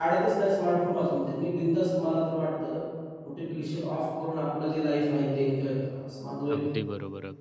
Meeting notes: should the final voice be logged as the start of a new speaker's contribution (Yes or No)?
Yes